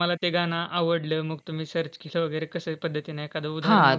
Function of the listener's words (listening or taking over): taking over